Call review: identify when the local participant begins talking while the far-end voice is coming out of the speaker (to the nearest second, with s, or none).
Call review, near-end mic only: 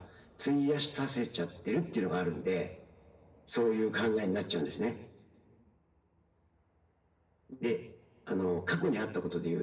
none